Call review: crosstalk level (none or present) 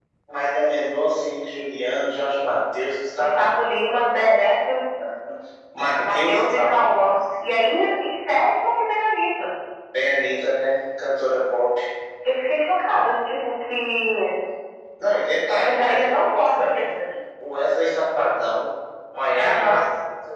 present